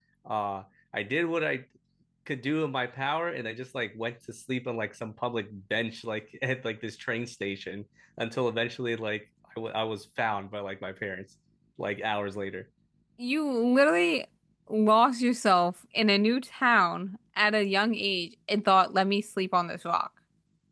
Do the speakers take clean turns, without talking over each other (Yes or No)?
Yes